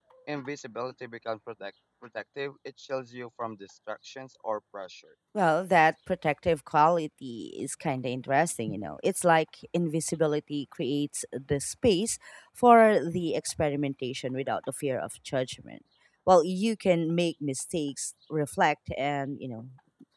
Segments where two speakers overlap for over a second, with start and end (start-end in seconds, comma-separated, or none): none